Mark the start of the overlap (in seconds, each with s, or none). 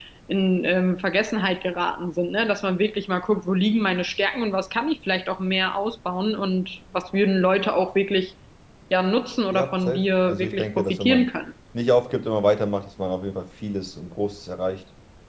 9.5 s